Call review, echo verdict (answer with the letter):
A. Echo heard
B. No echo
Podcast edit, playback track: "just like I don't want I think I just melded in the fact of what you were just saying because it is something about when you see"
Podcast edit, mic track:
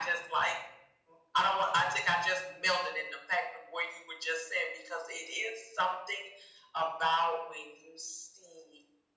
A